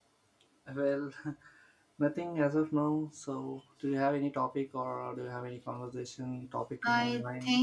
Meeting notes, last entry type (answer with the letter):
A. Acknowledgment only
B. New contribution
B